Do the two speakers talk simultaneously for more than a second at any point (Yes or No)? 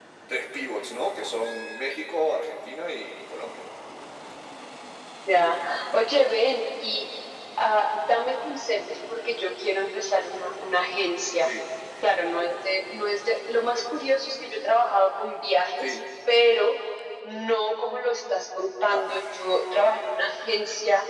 No